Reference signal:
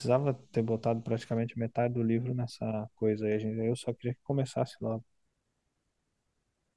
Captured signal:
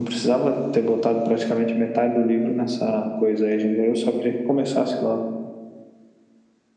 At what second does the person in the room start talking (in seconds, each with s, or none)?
none